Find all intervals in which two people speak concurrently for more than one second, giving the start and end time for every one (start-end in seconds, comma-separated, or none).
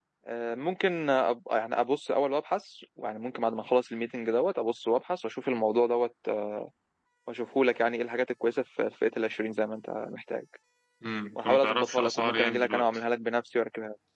11.4-12.9